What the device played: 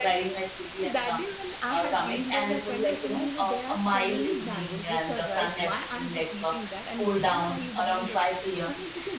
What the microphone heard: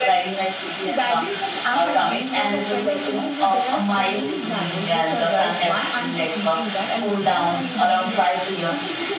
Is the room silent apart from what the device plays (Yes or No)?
Yes